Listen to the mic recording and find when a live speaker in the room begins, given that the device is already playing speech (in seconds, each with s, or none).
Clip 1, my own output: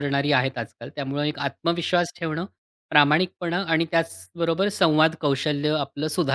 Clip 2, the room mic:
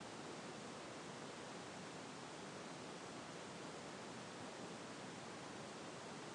none